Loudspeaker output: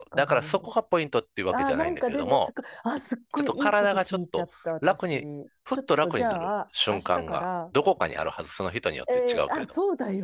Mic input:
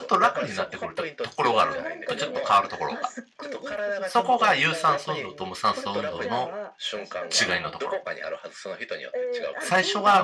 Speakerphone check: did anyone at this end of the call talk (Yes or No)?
Yes